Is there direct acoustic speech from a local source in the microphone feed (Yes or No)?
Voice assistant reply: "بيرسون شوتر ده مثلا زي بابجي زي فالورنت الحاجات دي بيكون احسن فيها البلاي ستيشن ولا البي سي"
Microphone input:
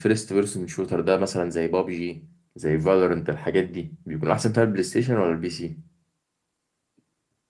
No